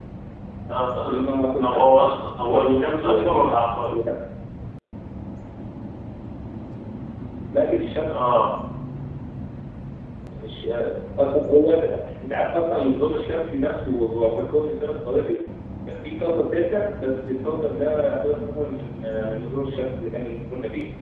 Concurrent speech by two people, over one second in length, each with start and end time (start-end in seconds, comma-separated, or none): 1.6-3.9